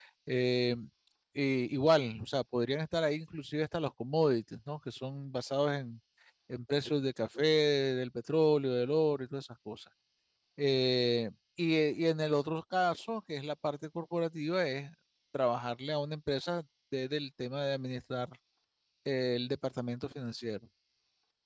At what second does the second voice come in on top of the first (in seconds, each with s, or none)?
none